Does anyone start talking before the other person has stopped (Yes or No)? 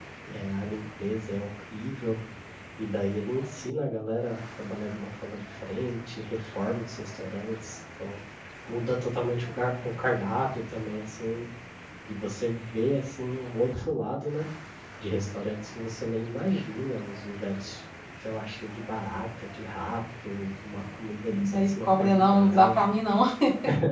Yes